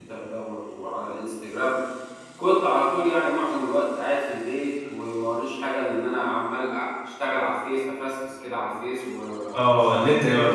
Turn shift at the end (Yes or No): Yes